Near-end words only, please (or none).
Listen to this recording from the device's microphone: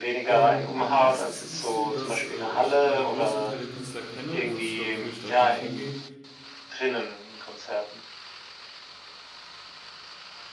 Ähm, meistens ist es so, dass, äh, ich immer den größten Teil der Künstler kenne, sonst glaube ich, würde ich da gar nicht hingehen.